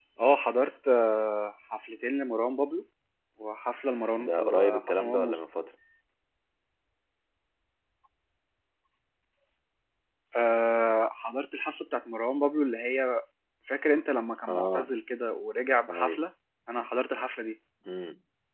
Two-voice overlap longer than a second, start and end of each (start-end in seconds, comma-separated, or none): 4.2-5.4